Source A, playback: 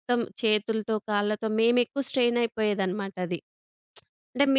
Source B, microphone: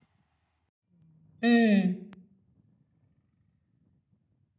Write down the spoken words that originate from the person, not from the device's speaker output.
హ్మ్.

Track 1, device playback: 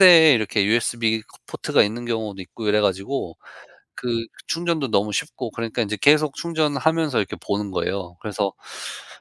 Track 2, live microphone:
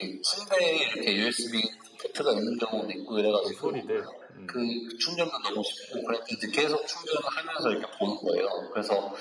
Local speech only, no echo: 어떤 소리들? 음.

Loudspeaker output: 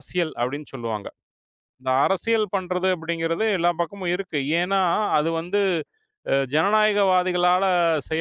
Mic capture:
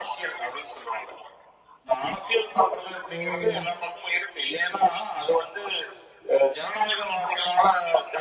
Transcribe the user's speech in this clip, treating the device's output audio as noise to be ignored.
ஓ!

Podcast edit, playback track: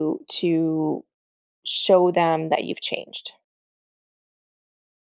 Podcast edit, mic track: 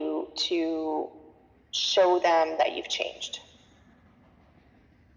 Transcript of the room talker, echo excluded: none

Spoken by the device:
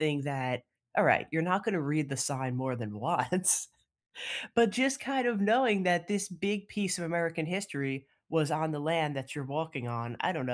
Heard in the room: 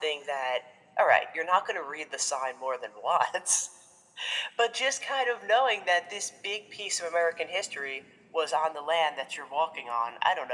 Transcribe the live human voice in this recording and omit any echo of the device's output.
none

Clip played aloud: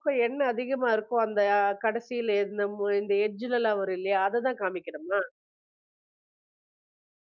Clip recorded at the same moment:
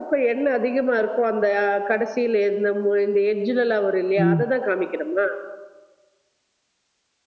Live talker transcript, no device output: ம்.

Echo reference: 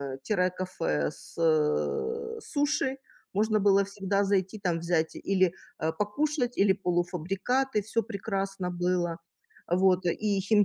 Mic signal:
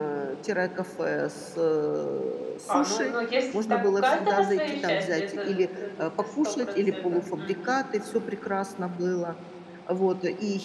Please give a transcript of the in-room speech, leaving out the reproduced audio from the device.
А, ну ну, если так, у каждого свое счастье, это э, это это сто процентов. Мгм, мгм.

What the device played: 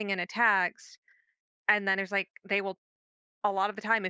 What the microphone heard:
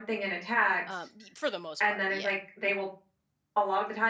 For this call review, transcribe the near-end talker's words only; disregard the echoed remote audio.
Um, y- for the most part, yeah.

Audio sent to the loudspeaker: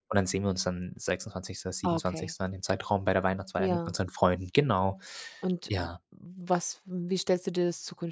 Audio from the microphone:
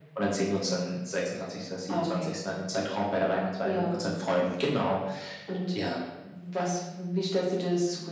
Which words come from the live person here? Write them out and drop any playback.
none

